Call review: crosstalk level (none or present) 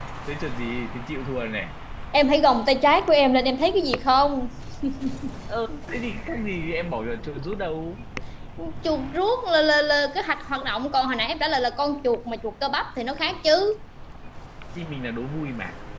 none